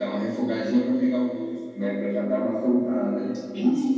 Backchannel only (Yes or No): No